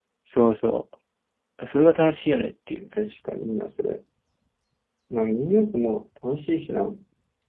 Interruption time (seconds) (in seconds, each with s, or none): none